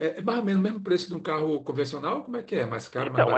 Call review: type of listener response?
taking over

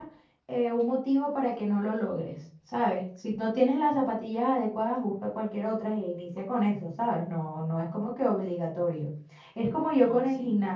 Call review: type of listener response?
listening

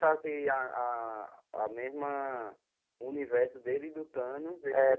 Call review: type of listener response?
taking over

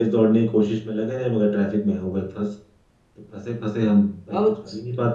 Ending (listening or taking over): taking over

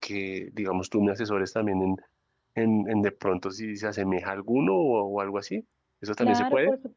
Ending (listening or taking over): taking over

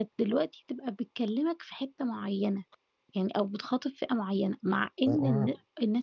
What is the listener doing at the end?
listening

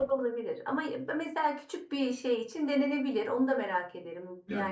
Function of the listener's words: taking over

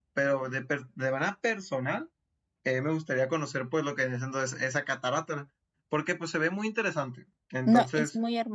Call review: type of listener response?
taking over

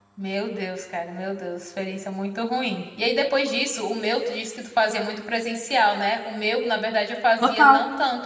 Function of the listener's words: listening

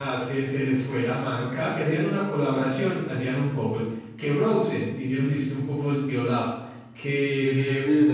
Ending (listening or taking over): taking over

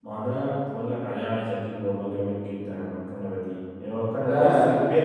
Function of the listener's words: listening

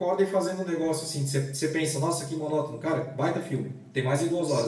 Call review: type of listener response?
taking over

